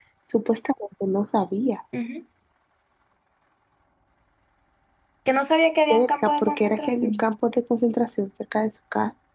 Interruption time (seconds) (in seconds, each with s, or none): 5.9 s